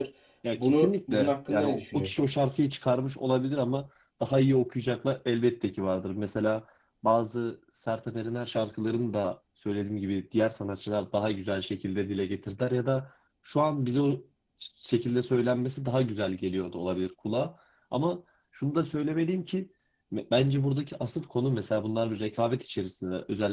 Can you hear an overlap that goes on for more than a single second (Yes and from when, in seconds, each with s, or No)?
Yes, from 0.6 s